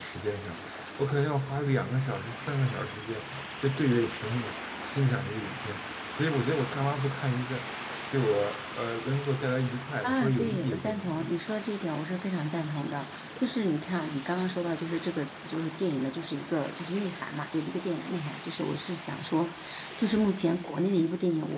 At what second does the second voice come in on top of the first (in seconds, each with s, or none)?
10.0 s